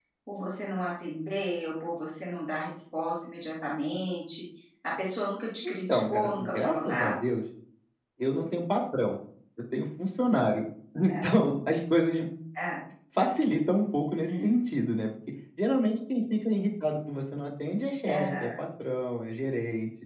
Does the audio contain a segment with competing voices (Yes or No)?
Yes